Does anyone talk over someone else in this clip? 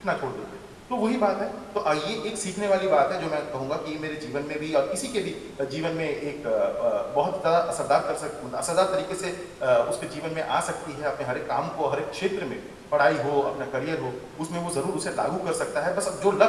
No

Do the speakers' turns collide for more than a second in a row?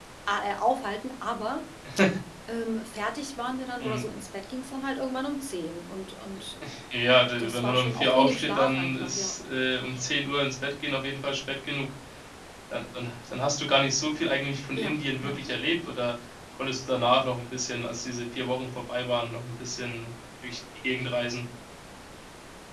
Yes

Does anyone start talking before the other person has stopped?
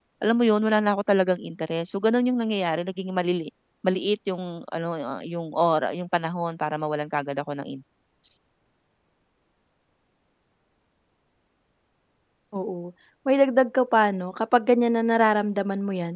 No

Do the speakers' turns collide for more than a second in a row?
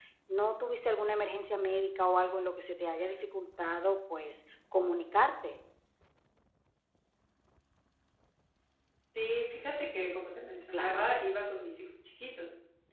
No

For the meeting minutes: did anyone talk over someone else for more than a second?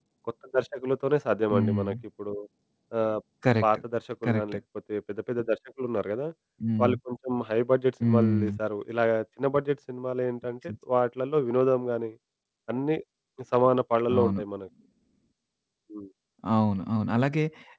No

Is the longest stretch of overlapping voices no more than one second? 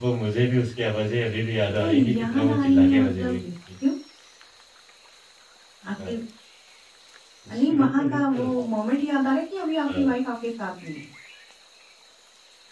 No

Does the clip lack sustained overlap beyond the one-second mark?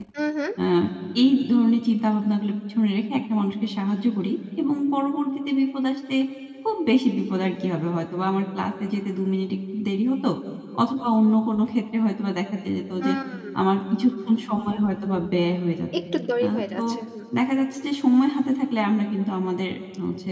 Yes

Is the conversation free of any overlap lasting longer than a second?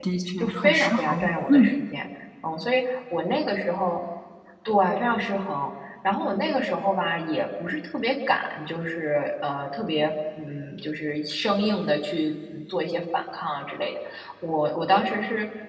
No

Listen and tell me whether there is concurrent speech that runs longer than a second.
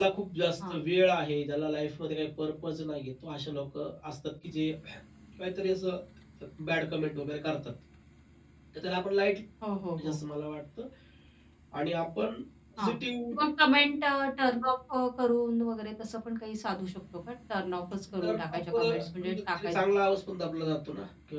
Yes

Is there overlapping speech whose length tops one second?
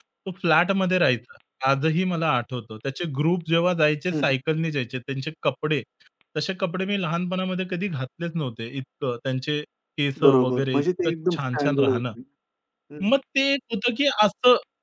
Yes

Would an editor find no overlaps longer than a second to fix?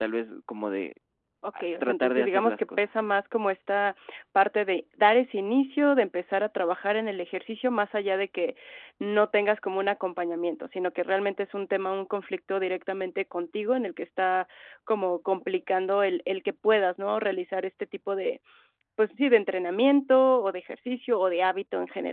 No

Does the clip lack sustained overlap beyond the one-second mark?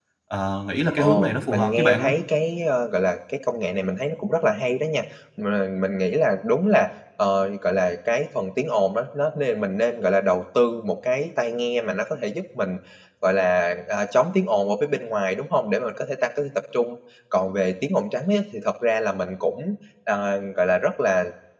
No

